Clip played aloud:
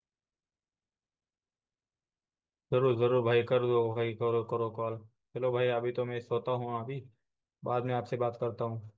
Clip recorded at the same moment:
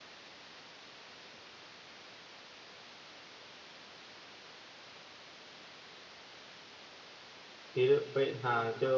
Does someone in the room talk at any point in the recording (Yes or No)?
Yes